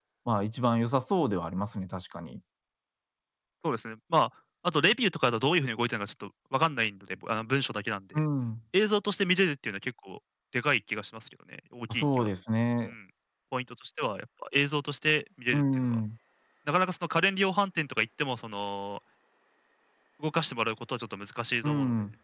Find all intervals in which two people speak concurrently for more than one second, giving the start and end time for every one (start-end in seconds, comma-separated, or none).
none